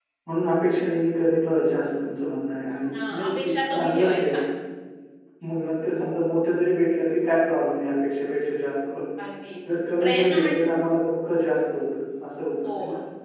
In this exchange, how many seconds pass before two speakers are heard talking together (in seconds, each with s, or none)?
3.1 s